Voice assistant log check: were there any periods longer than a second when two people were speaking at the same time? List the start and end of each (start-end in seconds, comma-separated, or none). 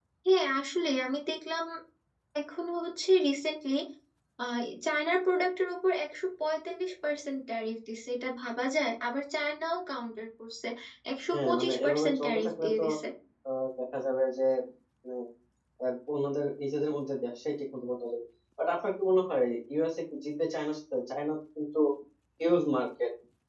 11.3-12.8